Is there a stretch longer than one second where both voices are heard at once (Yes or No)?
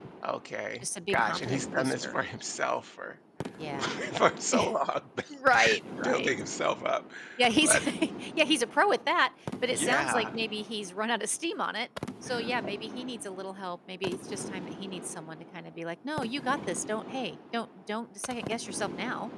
Yes